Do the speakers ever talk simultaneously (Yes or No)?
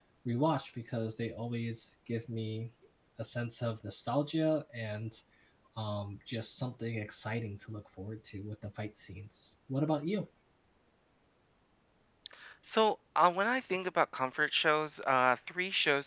No